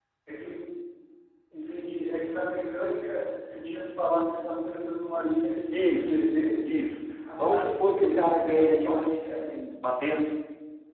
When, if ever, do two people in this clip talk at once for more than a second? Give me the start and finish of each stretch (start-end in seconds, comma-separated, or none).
7.4-9.4